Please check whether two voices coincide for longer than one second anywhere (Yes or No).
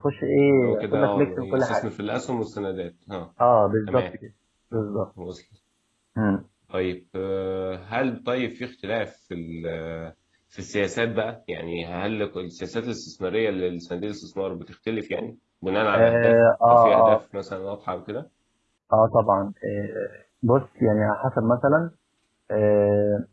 Yes